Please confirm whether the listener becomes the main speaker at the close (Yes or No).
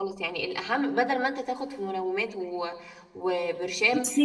No